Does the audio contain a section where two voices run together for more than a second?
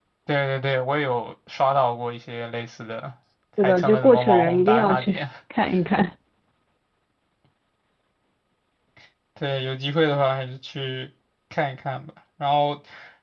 Yes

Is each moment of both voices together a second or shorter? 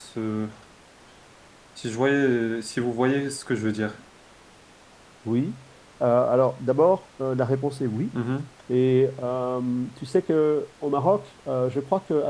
Yes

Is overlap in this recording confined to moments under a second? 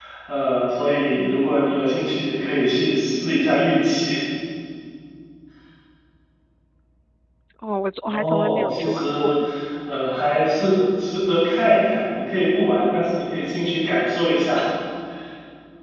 No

